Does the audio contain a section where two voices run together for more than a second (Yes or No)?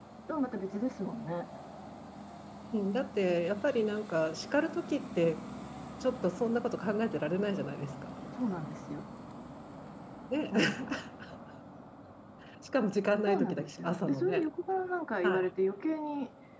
Yes